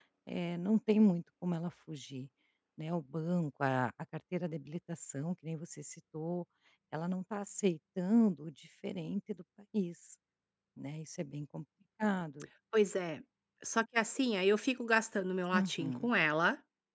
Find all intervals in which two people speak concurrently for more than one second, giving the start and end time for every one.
none

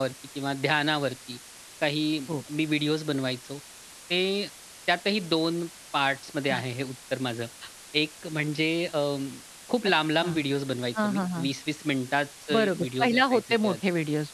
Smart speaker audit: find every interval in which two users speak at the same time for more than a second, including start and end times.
12.6-13.8

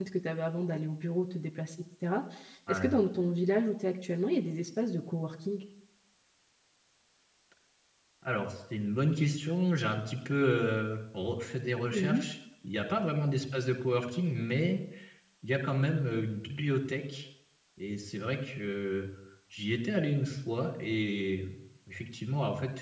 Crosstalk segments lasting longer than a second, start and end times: none

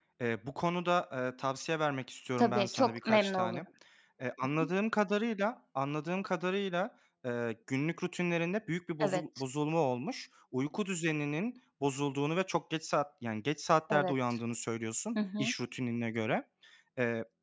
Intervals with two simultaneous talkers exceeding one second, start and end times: 2.4-3.6

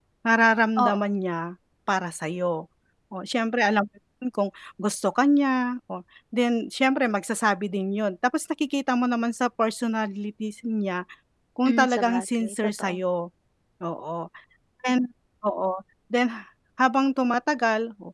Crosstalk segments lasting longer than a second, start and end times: 11.7-13.0

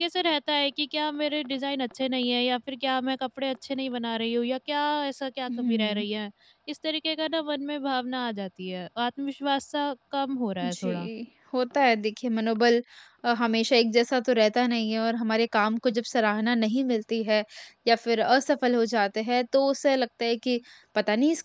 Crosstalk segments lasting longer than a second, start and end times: none

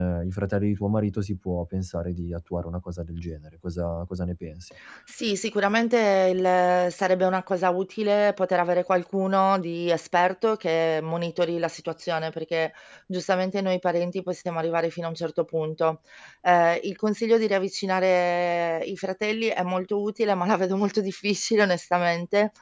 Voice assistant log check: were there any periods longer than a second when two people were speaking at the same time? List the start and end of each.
none

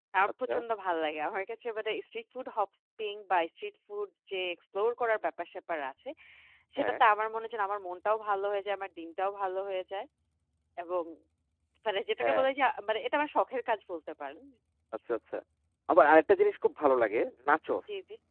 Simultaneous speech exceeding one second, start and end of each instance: none

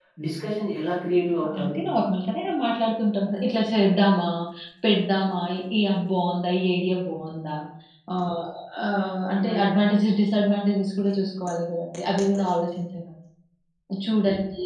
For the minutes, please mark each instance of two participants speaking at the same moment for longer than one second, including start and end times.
none

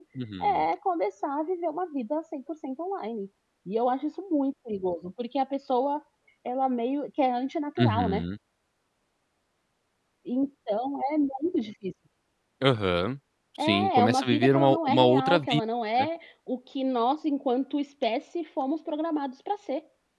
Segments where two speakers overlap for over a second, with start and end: 13.6-15.6

